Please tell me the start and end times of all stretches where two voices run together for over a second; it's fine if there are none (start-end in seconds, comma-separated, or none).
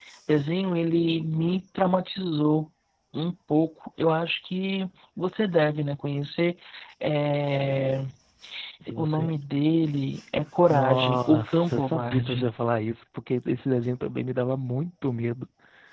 10.7-12.5